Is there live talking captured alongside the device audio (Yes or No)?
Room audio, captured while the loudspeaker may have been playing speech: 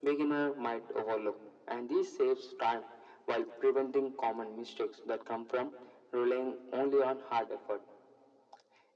No